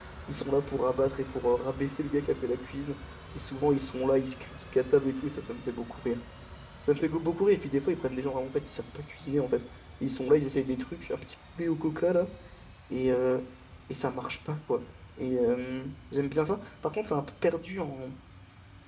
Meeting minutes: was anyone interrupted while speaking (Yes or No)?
No